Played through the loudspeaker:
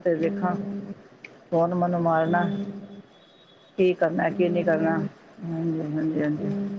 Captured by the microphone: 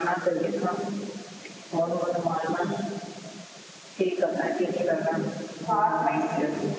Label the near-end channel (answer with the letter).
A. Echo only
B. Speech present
B